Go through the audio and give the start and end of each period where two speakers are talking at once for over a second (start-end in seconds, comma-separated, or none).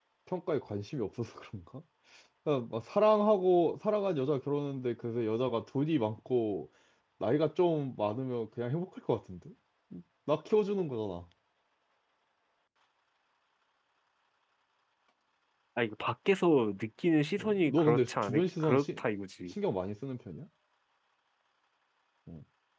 17.4-19.0